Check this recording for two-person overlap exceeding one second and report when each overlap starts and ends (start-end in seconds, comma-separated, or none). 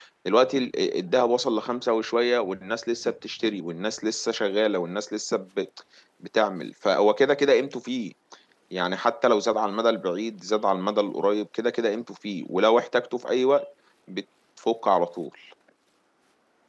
none